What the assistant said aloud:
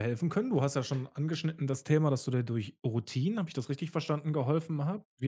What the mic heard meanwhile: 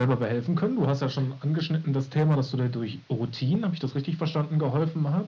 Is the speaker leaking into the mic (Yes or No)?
Yes